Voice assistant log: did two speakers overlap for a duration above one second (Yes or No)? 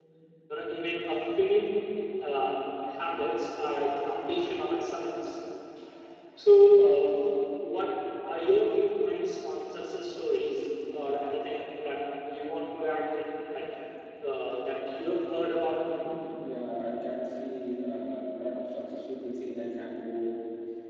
No